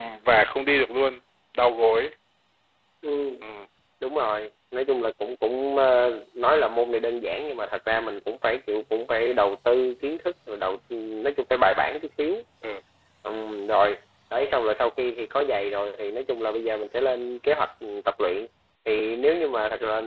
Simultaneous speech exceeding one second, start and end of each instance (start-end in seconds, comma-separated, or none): none